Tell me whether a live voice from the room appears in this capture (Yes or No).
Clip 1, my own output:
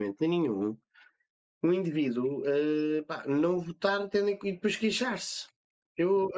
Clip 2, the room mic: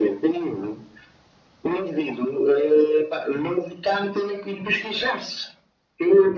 No